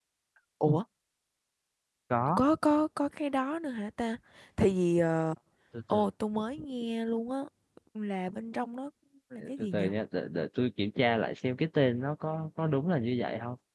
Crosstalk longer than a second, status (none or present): none